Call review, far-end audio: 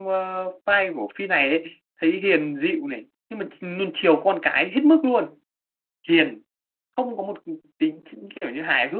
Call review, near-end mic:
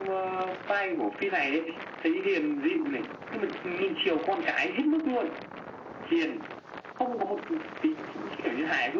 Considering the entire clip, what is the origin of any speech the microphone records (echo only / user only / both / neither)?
echo only